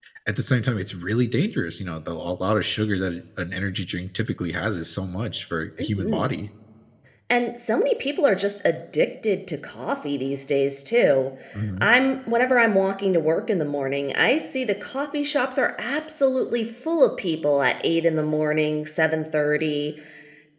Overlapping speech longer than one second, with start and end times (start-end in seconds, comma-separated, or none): none